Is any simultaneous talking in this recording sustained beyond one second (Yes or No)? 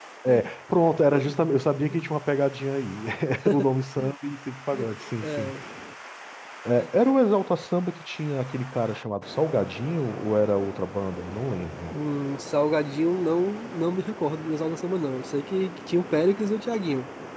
No